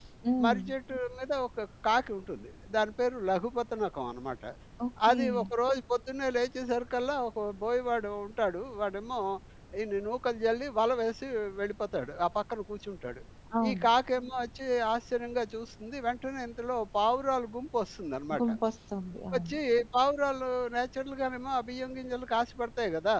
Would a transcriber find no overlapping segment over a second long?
Yes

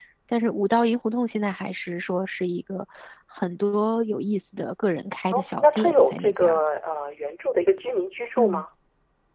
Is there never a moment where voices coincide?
No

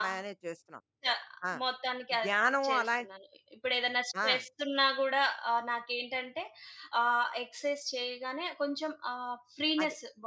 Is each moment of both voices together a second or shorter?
Yes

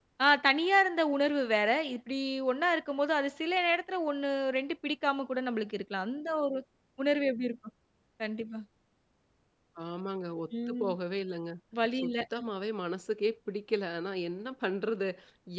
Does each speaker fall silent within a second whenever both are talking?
Yes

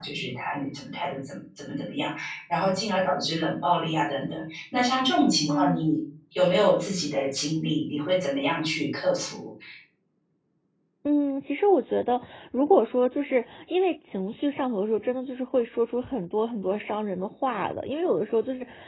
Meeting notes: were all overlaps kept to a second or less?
Yes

